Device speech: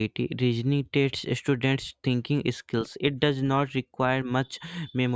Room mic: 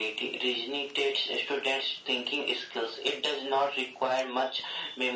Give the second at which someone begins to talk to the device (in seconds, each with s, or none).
none